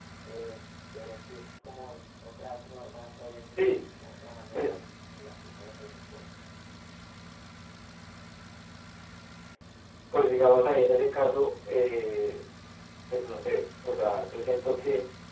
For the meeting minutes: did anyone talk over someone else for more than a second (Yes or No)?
No